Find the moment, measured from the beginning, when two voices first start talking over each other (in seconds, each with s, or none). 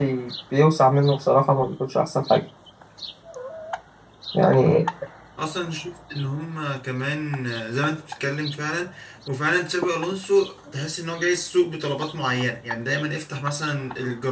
none